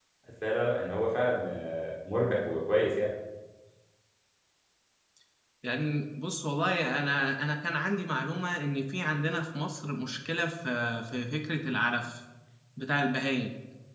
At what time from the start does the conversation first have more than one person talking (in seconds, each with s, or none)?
none